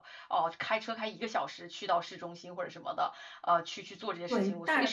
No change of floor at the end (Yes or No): No